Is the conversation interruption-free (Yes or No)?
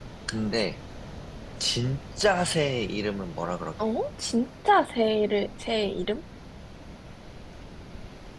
Yes